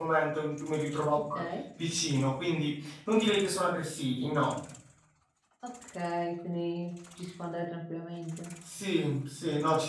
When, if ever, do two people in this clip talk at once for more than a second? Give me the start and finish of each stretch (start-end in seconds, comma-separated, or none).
none